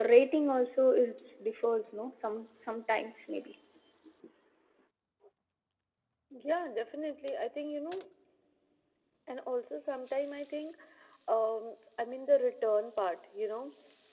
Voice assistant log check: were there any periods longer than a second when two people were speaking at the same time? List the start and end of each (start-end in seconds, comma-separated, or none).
none